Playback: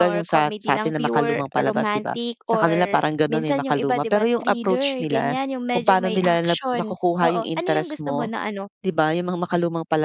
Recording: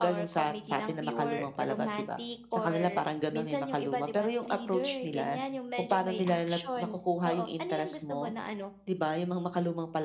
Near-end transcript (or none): none